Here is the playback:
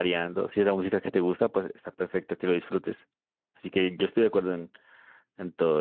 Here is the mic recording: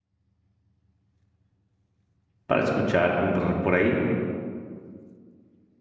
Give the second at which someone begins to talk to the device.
2.5 s

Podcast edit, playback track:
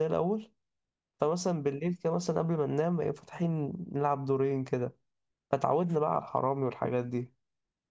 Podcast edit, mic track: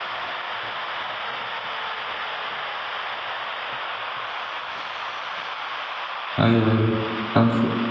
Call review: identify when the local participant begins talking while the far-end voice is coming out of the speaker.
6.4 s

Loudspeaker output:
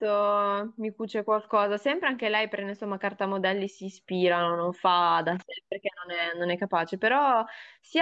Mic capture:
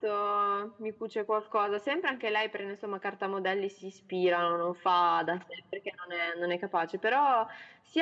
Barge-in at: none

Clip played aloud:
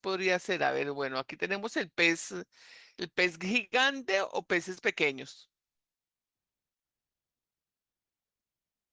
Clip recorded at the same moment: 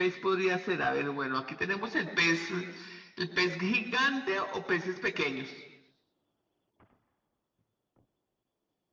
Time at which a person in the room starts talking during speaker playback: none

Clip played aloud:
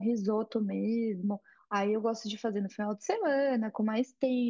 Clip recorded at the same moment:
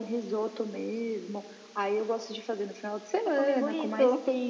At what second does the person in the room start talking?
3.2 s

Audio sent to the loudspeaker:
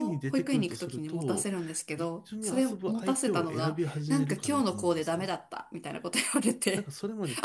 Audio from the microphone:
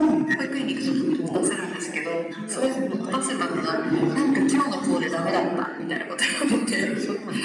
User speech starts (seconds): none

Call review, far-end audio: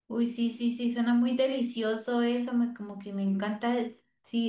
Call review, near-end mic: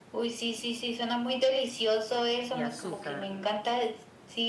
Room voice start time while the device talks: 2.5 s

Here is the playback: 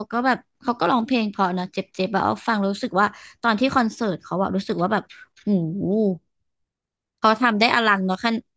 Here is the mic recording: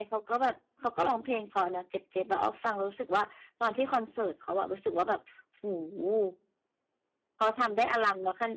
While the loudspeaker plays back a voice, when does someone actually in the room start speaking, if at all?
none

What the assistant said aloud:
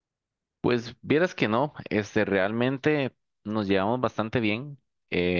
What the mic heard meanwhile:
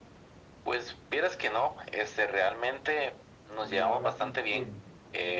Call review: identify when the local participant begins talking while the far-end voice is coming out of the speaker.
3.6 s

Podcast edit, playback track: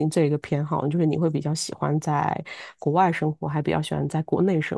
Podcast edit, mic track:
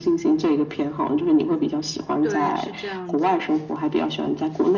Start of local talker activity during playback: 2.2 s

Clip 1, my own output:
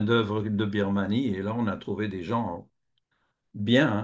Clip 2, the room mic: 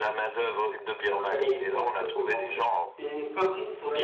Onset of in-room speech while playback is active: 1.0 s

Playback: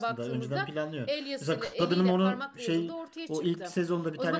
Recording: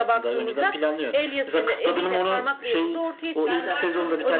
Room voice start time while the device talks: 3.4 s

